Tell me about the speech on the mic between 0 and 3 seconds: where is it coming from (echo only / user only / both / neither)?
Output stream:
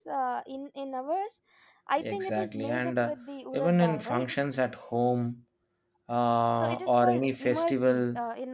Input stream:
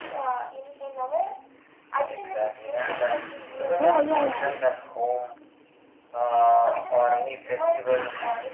echo only